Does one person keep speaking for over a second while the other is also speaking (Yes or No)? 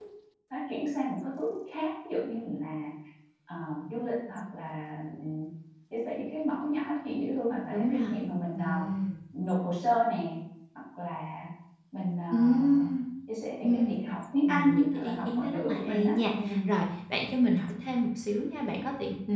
Yes